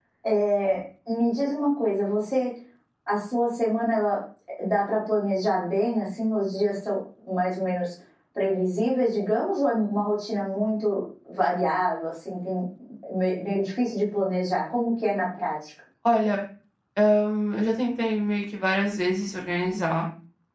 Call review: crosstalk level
none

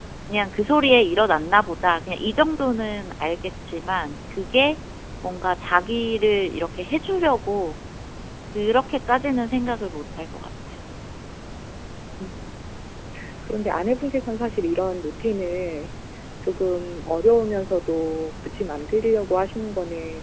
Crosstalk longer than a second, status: none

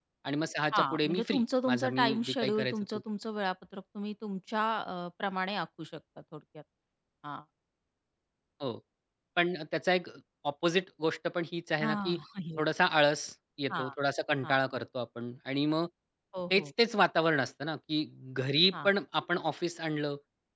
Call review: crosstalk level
present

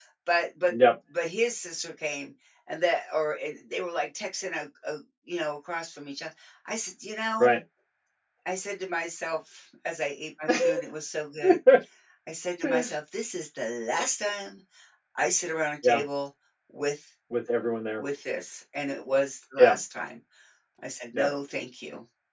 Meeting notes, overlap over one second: none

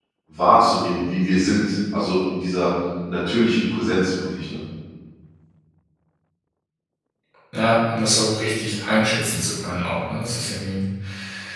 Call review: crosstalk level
none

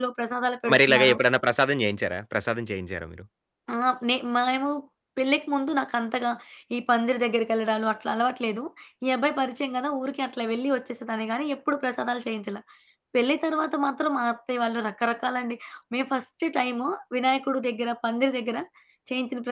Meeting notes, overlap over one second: none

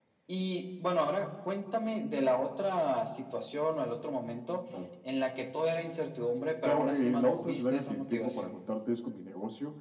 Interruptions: present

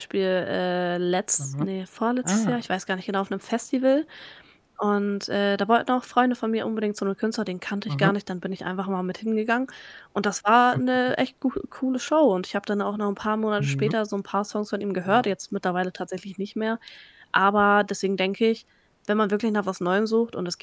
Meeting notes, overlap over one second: none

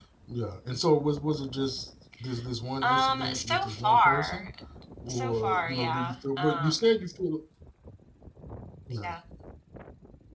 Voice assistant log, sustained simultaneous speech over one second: present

